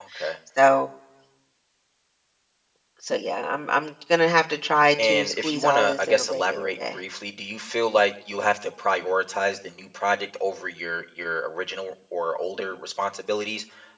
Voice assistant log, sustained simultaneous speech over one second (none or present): present